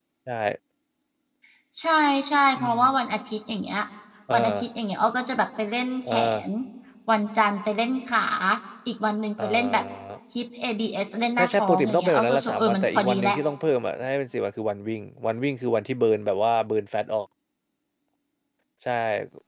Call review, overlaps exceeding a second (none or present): present